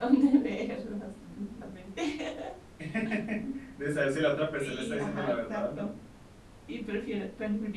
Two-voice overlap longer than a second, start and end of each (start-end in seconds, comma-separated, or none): 4.6-5.9